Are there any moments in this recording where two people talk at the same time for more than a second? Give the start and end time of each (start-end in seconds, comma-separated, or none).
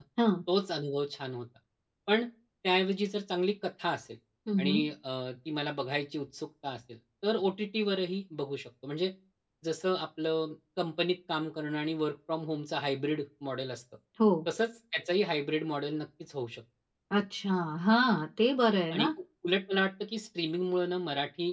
none